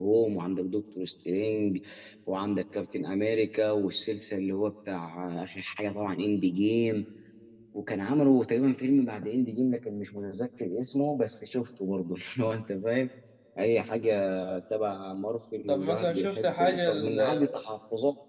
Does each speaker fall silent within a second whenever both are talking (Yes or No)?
No